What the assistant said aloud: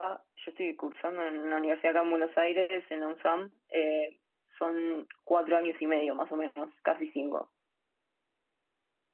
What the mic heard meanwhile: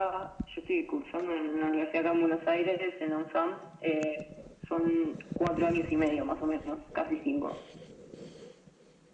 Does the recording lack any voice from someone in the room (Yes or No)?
Yes